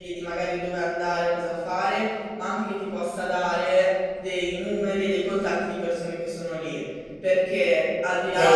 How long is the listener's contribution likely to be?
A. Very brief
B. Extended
A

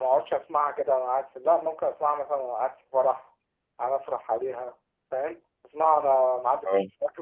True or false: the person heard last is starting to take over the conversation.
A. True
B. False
B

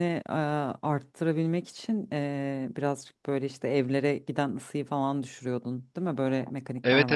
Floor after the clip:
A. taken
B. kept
A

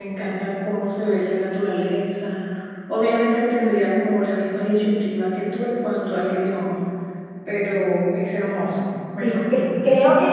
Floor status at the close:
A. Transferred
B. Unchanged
A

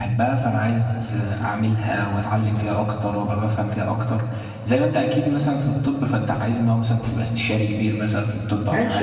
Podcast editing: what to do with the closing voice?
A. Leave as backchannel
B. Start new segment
B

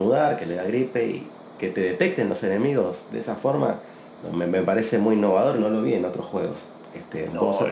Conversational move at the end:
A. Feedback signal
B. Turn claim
B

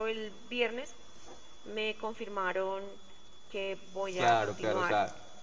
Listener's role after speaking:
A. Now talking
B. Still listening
A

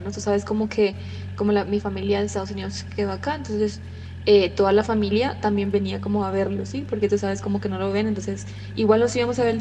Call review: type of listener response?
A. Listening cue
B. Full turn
A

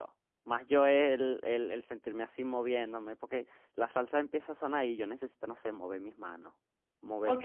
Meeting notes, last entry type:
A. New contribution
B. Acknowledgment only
A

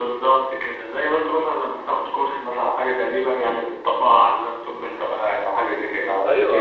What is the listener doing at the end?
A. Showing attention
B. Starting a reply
B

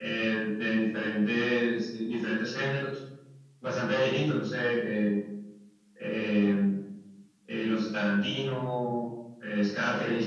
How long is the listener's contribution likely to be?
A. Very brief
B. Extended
A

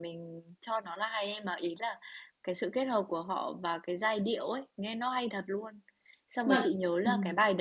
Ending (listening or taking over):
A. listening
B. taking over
A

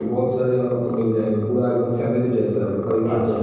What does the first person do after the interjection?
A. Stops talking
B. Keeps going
A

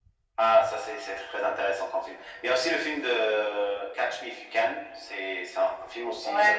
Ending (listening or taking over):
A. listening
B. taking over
B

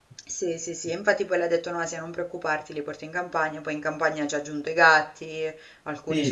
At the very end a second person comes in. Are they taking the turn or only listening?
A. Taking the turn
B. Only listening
A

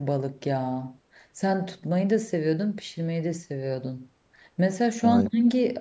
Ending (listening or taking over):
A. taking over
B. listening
B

